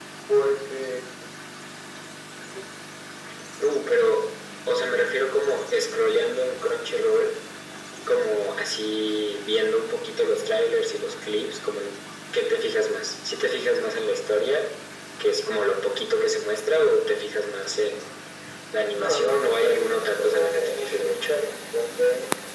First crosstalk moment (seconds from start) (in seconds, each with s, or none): 18.9 s